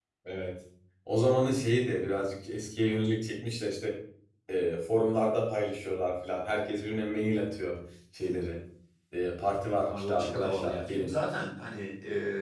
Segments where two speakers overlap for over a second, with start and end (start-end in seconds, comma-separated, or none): 9.9-11.1